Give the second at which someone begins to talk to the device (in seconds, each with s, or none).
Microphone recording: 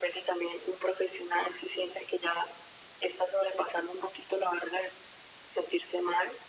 none